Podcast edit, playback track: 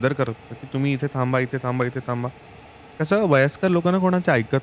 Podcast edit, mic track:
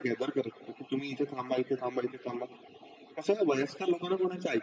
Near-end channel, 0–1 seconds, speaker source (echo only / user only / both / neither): echo only